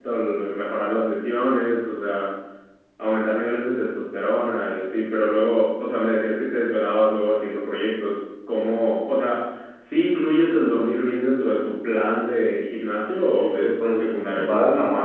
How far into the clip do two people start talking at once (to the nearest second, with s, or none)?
13 s